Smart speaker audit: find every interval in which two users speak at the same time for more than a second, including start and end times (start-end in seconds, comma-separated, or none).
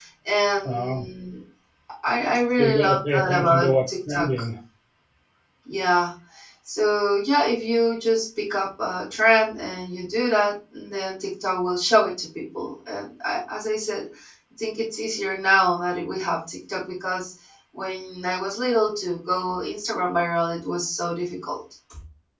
2.6-4.3